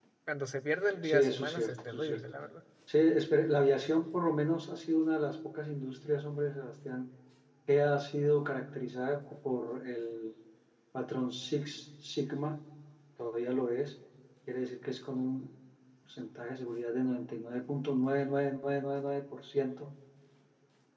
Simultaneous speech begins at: 1.0 s

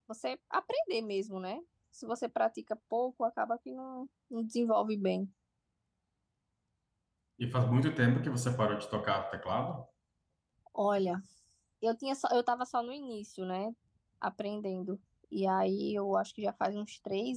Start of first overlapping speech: none

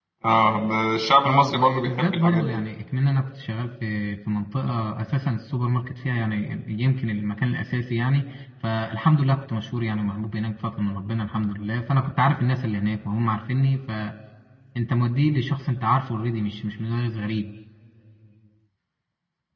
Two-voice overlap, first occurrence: 1.3 s

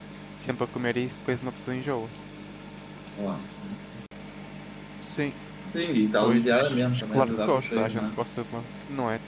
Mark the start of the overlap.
6.2 s

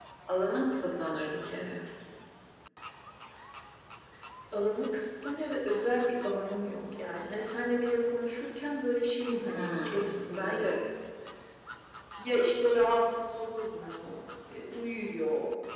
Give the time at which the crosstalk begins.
9.5 s

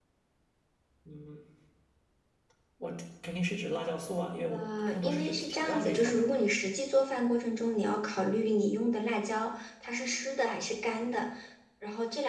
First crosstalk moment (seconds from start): 4.5 s

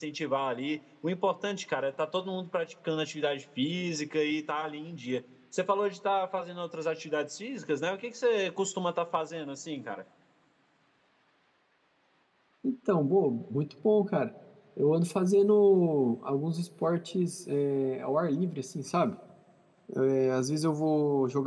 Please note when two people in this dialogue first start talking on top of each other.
none

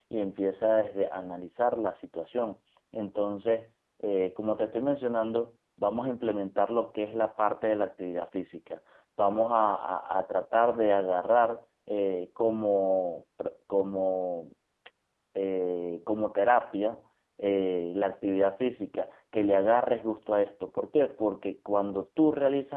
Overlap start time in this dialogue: none

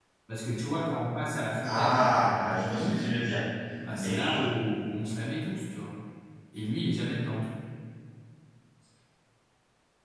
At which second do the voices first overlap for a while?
1.6 s

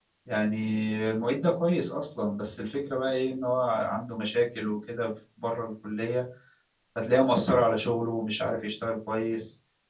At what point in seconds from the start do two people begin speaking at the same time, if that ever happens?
none

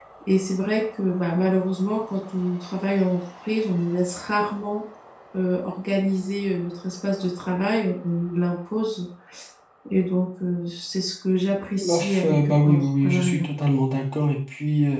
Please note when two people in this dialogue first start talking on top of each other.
11.8 s

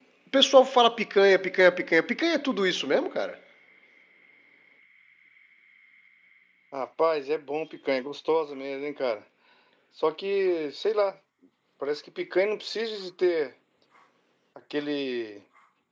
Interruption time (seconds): none

